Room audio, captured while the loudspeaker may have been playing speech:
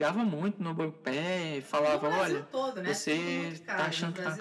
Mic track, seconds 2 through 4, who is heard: both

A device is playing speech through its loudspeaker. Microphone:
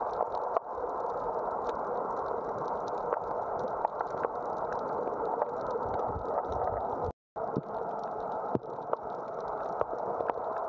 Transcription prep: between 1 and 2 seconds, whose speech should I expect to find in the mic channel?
neither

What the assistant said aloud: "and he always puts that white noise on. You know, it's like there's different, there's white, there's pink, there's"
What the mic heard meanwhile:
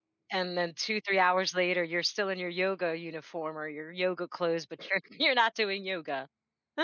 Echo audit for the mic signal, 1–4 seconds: user only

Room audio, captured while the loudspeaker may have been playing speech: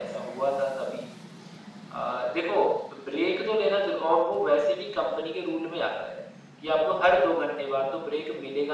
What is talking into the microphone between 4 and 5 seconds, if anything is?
echo only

